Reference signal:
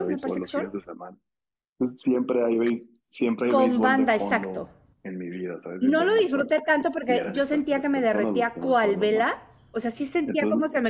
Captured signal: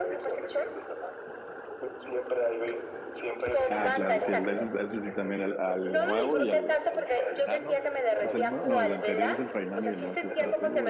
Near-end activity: present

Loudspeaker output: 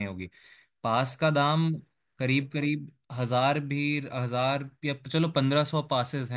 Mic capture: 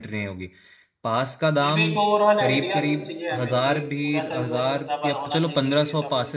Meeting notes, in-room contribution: present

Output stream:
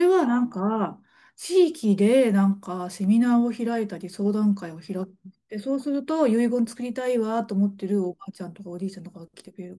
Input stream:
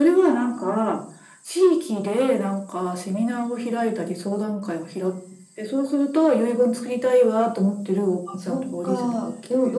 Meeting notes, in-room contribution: present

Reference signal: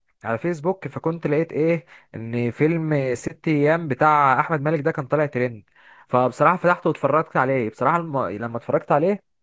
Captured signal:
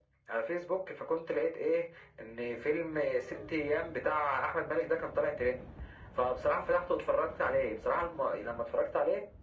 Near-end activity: none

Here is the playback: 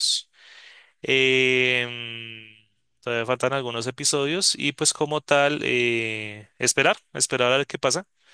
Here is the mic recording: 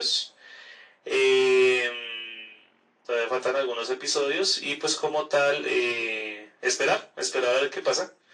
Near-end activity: none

